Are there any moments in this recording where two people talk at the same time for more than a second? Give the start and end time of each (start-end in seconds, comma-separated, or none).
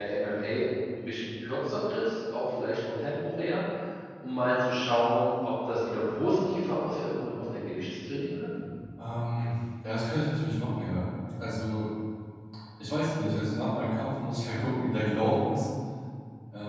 none